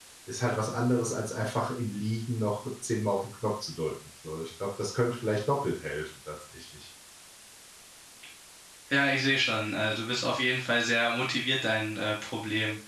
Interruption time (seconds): none

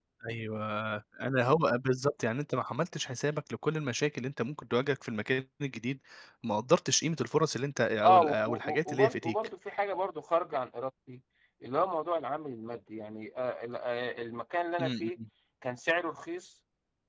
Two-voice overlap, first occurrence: 8 s

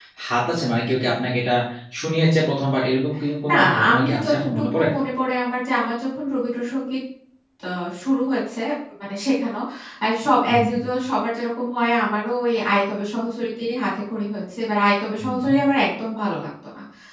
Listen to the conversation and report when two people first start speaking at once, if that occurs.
3 s

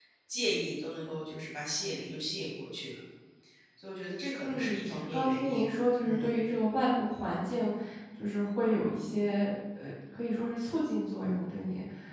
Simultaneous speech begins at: 4 s

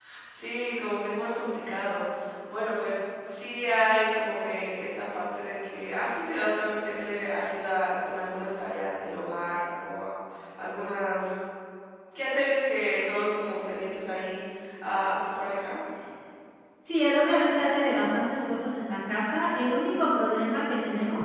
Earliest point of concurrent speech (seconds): none

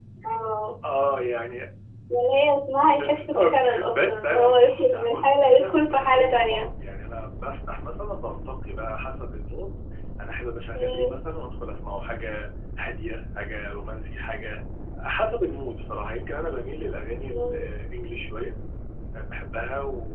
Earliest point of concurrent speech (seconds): 3 s

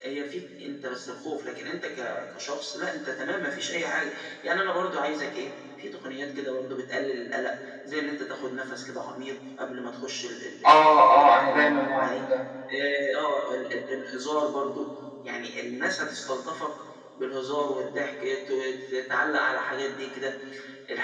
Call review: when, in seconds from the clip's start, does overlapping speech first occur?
11 s

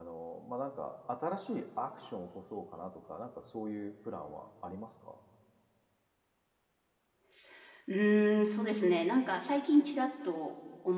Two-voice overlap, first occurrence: none

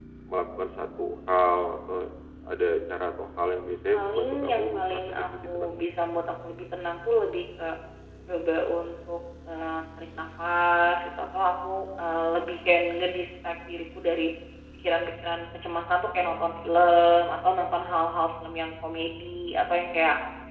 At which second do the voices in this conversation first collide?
4 s

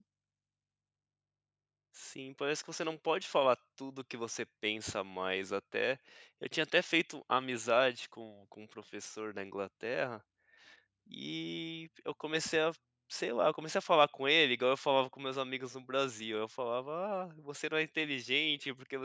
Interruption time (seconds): none

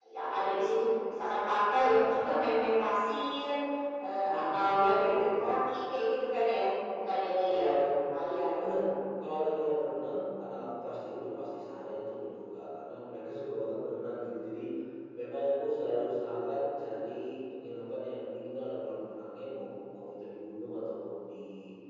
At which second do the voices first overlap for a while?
4 s

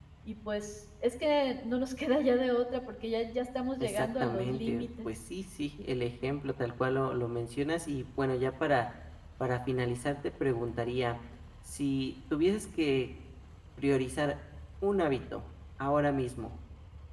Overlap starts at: 4 s

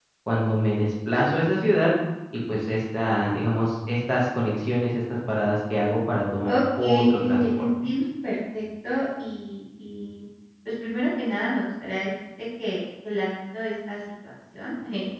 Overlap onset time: 6 s

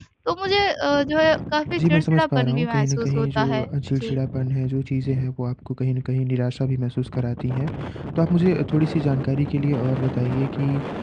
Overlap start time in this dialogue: 2 s

